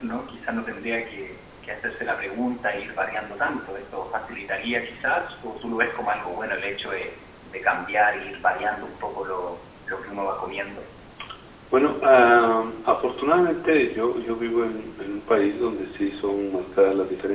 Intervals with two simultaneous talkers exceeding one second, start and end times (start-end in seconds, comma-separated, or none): none